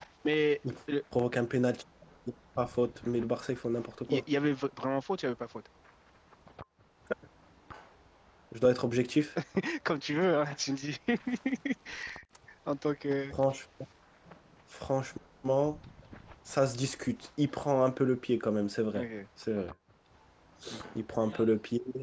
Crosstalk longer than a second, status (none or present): none